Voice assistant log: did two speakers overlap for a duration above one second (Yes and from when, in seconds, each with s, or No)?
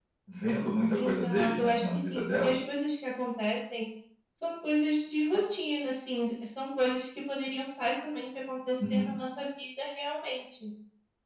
Yes, from 1.0 s